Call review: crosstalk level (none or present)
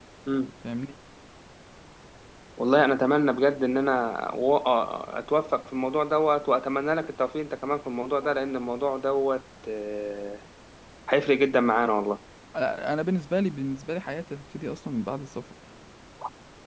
none